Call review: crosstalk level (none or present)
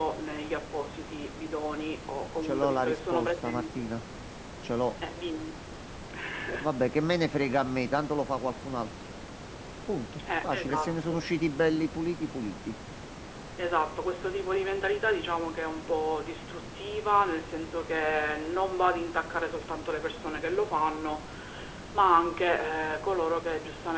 present